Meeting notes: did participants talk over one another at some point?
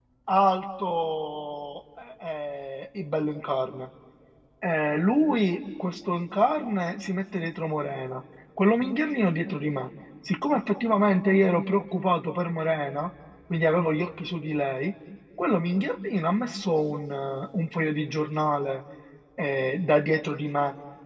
No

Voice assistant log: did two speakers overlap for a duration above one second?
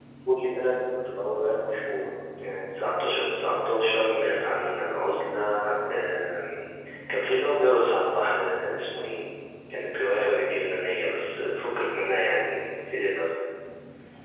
No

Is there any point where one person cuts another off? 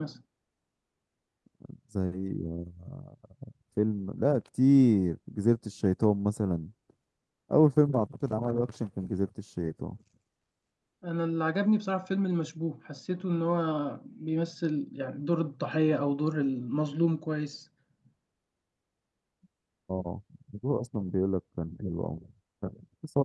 No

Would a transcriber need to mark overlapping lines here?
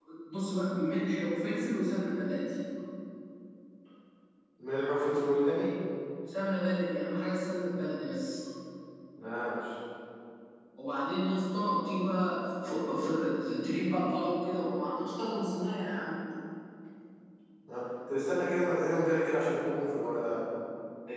No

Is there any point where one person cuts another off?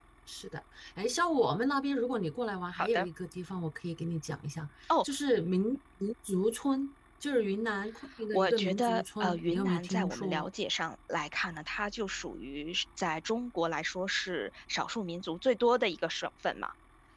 Yes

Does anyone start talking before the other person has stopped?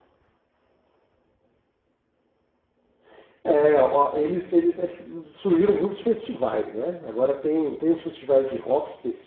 No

